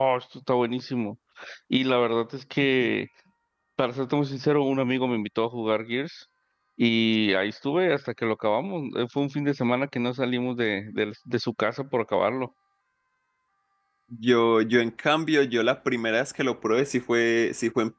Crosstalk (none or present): none